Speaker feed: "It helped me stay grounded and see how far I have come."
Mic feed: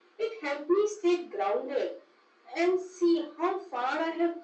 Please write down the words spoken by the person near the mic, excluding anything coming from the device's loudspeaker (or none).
none